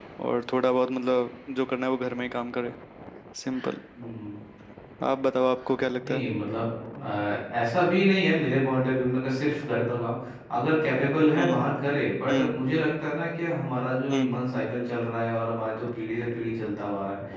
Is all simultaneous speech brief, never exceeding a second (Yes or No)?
Yes